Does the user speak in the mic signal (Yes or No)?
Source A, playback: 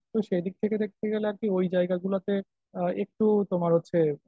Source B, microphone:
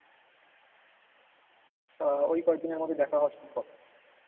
Yes